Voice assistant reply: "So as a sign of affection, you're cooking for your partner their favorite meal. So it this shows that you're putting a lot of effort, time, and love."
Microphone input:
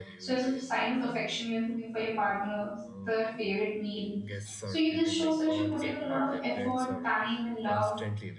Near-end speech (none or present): present